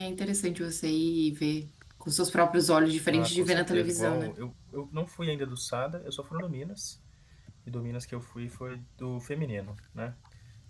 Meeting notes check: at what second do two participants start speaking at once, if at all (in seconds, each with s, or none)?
3.1 s